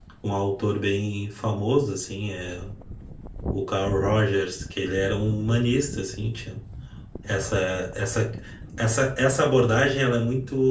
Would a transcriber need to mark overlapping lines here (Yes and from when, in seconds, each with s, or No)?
No